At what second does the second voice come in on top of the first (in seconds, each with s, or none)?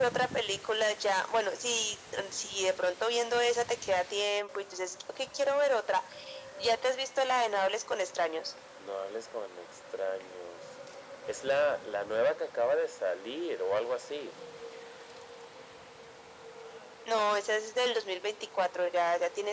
none